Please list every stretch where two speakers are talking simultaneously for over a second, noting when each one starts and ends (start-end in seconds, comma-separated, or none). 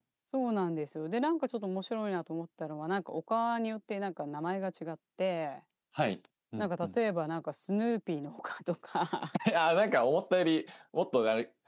none